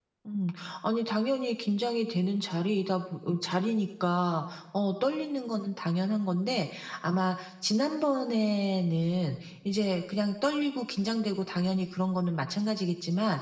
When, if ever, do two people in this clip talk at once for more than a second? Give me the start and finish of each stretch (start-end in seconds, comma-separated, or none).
none